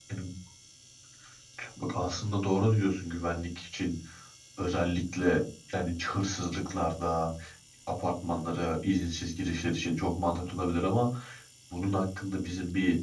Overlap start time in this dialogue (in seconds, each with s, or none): none